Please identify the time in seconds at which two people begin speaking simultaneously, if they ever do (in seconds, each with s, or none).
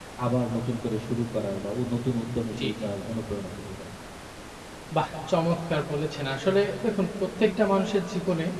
none